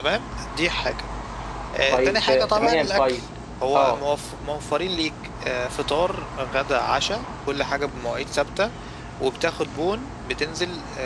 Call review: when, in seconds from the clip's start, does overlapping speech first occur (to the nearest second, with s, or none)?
2 s